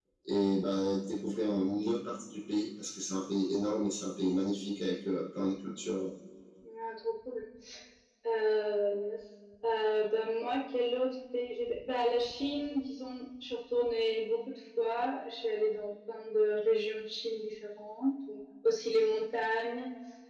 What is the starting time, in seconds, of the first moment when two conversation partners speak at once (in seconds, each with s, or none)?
none